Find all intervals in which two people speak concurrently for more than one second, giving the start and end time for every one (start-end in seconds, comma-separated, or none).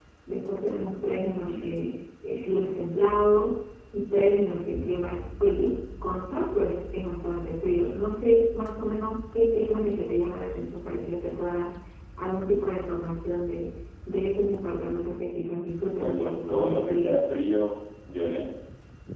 16.0-17.2